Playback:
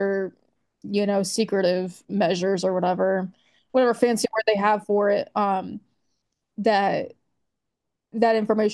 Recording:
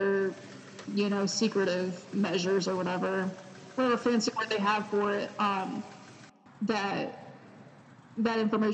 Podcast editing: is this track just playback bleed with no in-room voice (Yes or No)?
Yes